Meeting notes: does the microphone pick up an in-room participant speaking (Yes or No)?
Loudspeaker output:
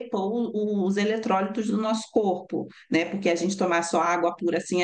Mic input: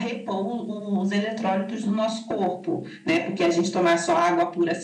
No